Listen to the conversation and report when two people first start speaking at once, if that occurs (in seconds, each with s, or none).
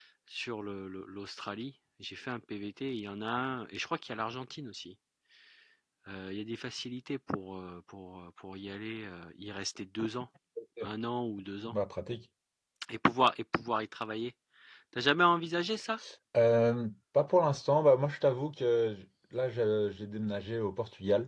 none